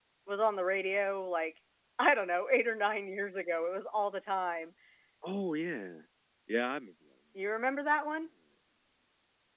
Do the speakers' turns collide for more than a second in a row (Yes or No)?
No